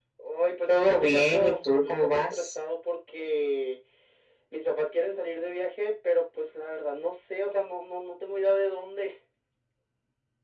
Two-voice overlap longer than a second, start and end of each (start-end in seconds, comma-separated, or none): 0.7-2.5